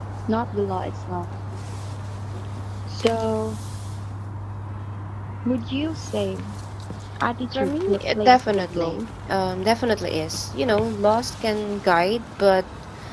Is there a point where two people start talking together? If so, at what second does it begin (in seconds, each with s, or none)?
7.5 s